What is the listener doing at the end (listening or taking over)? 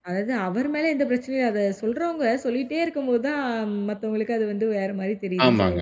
taking over